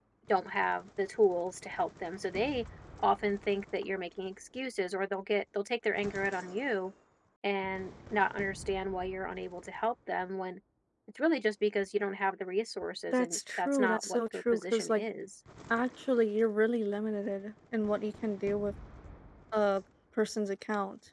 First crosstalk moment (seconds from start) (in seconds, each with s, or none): 13.1 s